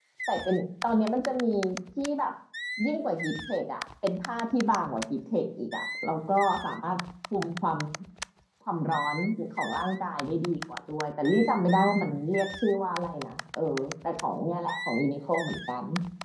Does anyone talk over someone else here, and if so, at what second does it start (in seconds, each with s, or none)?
none